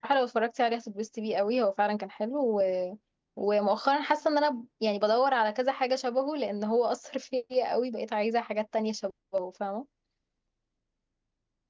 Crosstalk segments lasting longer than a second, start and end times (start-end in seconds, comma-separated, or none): none